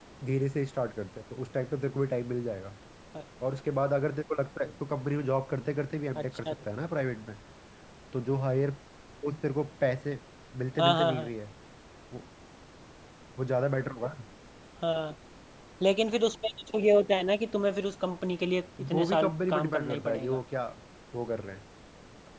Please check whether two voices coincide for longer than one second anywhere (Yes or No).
Yes